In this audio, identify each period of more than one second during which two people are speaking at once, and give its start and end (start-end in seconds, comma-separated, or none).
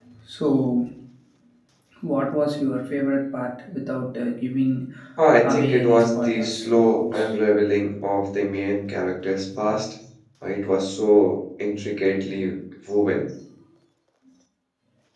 5.4-7.3